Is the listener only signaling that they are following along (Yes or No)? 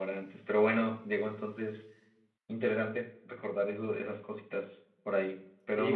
No